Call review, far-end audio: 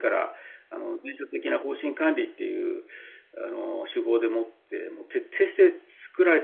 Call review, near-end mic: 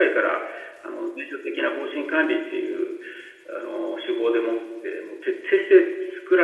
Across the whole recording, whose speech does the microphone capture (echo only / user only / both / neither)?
echo only